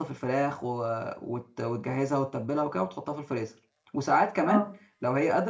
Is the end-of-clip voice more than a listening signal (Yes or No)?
No